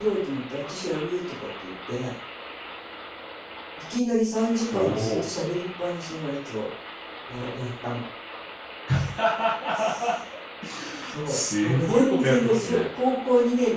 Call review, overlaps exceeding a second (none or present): present